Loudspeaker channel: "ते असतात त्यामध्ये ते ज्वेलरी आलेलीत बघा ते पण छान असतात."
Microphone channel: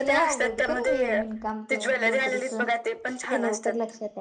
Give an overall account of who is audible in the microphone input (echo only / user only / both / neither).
both